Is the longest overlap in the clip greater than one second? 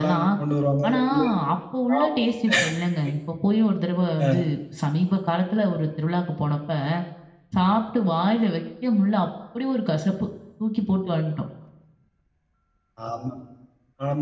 No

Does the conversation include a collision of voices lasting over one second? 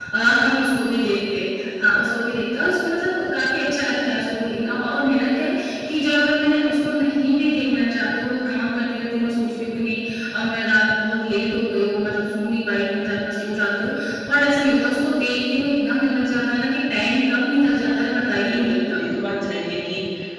No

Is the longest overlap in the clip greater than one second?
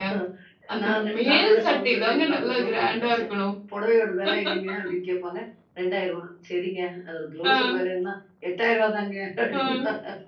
Yes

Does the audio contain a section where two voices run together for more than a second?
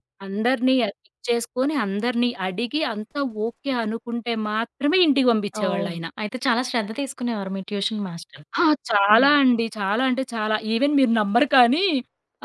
No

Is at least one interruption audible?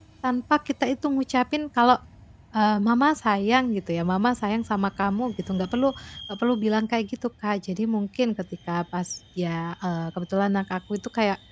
No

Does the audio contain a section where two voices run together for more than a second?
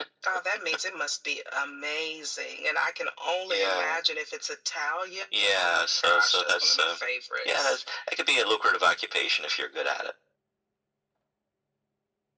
Yes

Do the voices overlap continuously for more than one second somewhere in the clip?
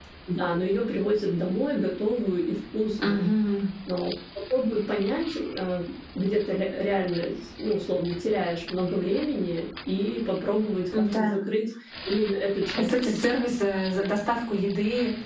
No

